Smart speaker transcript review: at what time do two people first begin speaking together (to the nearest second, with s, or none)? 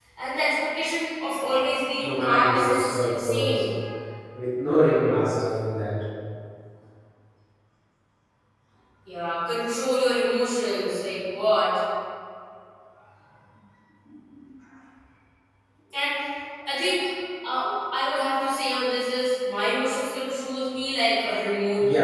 2 s